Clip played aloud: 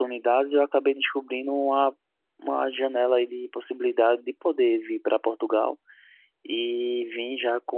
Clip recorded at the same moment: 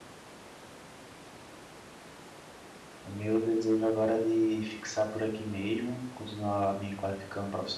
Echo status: none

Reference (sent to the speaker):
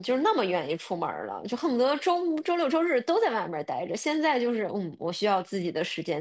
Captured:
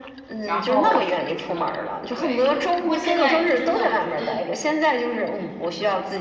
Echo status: present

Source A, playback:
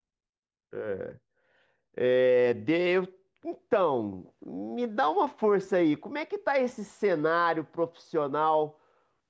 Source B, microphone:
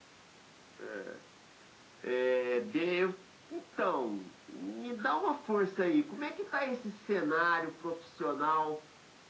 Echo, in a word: present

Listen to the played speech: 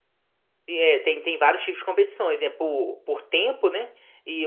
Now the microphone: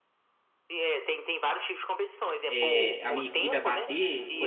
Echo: present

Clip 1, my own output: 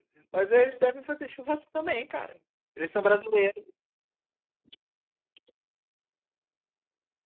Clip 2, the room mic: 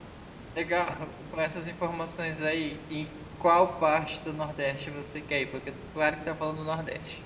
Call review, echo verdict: none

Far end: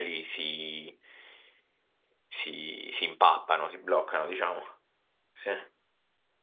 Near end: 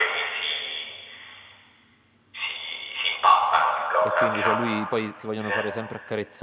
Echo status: present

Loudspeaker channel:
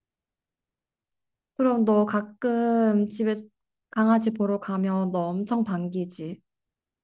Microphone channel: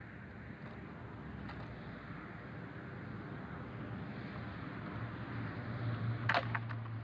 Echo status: none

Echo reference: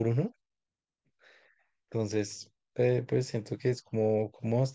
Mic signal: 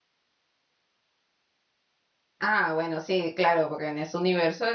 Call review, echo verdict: none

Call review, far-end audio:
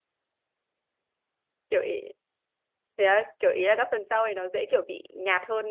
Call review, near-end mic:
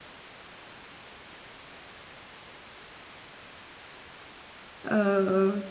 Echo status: none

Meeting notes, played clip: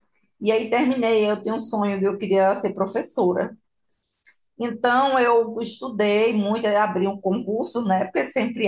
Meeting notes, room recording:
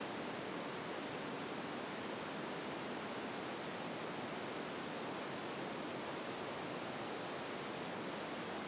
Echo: none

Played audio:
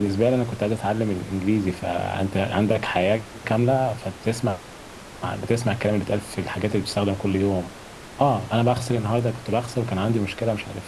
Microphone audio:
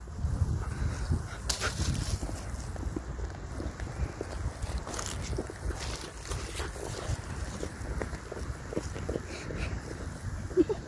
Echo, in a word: none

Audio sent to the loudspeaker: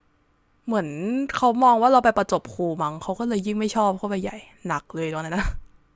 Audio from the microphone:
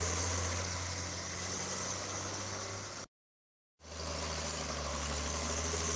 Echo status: none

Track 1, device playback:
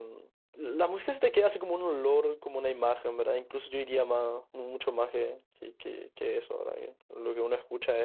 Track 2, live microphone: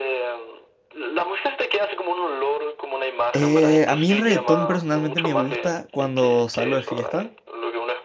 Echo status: present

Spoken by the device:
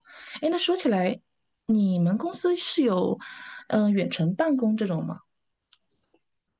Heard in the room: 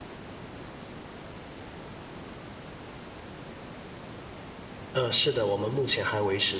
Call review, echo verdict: none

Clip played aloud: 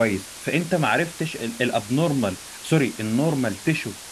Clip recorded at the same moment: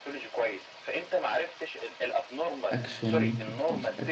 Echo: present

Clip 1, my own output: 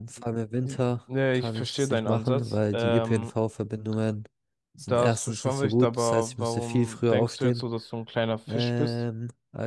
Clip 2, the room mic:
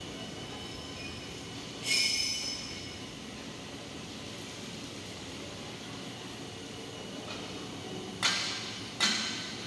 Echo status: none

